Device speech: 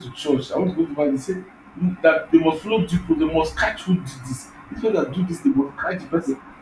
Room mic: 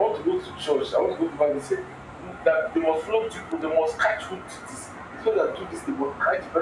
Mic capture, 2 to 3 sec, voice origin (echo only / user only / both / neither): echo only